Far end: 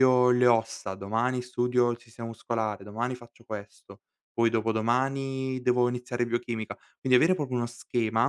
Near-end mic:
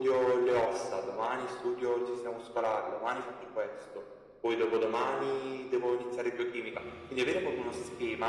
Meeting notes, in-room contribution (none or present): none